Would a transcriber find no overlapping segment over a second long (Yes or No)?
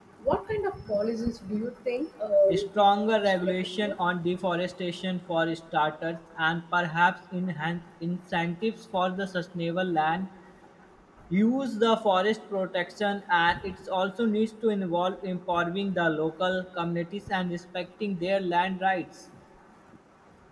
No